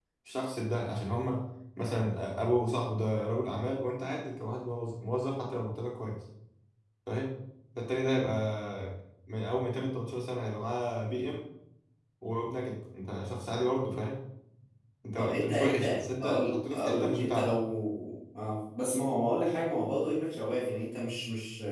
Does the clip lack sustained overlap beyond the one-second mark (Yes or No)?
No